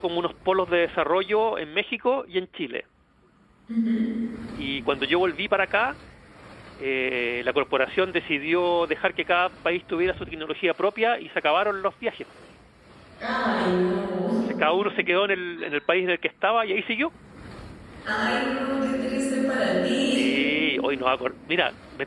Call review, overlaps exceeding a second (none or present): none